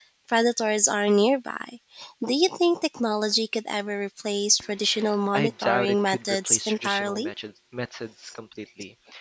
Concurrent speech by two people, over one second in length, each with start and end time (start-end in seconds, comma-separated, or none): 5.3-7.3